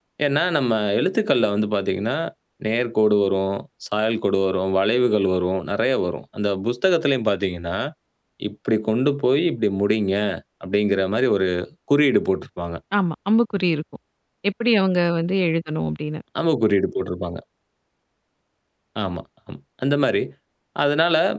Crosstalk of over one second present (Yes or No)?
No